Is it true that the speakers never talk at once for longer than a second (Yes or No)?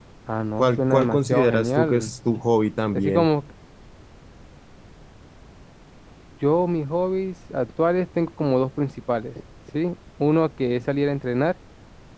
No